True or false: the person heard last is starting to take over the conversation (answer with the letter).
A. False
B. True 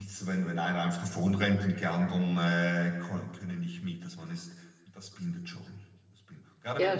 A